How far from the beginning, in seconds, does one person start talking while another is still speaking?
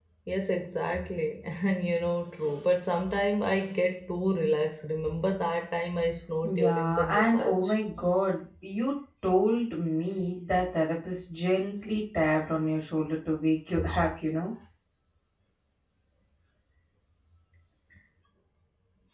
6 s

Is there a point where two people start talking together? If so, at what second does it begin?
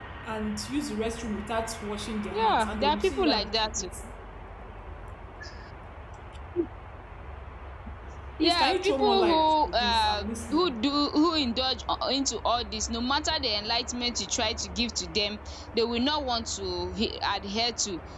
2 s

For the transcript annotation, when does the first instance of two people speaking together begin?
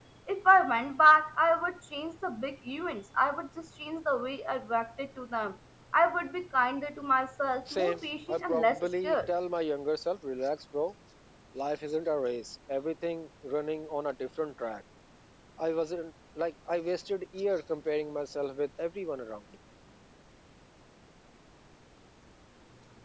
8 s

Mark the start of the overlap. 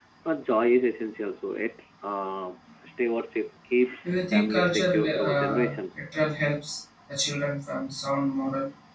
4 s

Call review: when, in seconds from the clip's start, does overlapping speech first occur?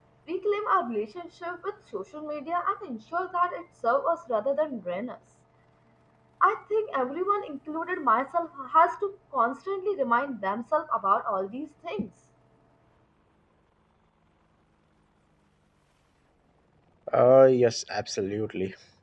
none

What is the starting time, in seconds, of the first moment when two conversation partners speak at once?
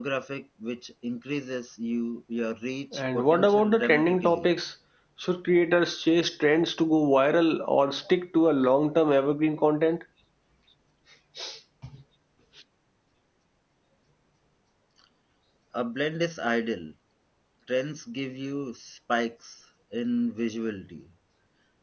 3 s

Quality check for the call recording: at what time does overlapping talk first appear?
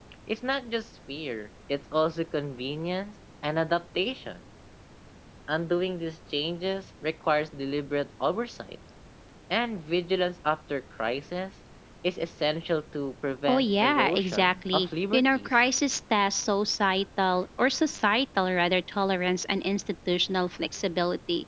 13 s

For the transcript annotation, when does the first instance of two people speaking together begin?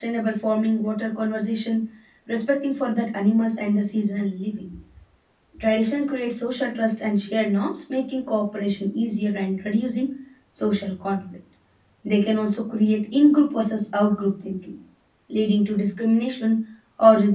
none

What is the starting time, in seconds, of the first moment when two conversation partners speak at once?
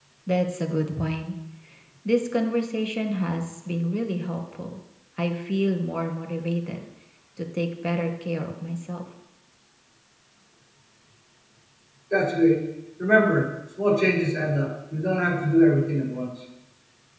none

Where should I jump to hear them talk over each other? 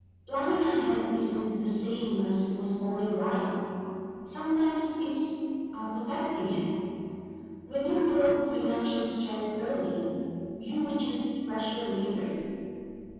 none

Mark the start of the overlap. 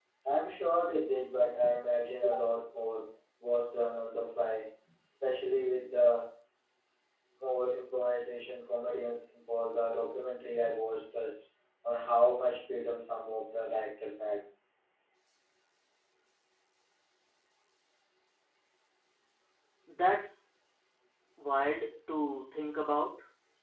none

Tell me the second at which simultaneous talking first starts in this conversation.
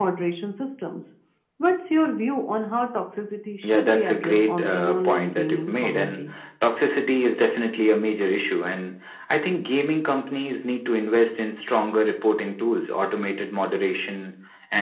4 s

